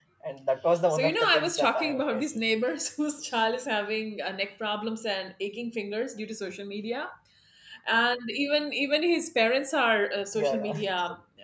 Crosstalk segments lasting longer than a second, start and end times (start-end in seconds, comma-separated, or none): 0.9-2.2